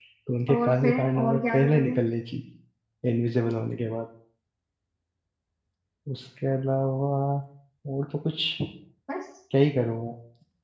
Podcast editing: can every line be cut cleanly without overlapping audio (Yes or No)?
No